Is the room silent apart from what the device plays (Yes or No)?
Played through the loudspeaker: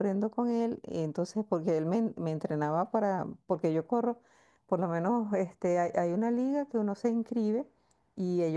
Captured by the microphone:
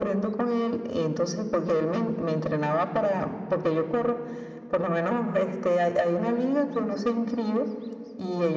Yes